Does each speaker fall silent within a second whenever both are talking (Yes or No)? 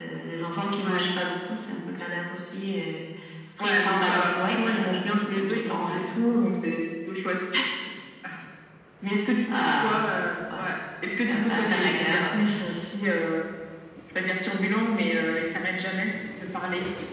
No